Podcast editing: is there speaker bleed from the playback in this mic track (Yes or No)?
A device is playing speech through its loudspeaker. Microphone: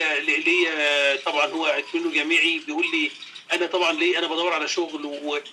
Yes